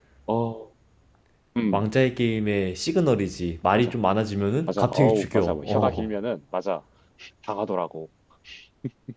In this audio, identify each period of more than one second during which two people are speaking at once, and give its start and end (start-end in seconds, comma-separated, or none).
4.7-6.1